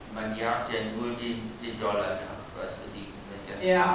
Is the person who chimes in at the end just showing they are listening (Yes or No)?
No